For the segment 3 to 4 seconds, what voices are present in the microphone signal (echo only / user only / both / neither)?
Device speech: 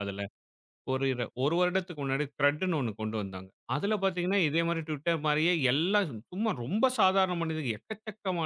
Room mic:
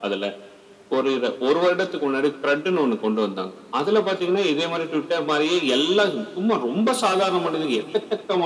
echo only